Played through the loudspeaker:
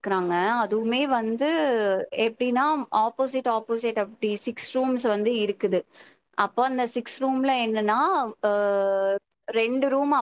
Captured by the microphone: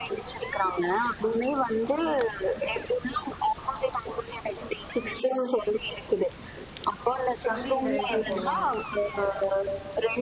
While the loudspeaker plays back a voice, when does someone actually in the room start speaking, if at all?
7.5 s

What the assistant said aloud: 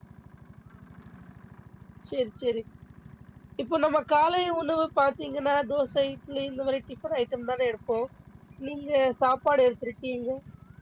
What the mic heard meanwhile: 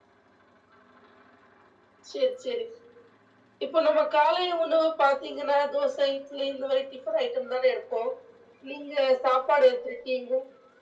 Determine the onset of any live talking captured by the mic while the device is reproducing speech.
none

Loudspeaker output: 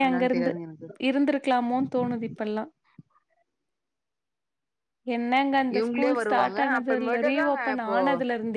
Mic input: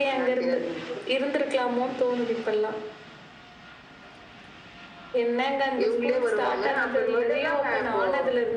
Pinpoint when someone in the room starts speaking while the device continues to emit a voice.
none

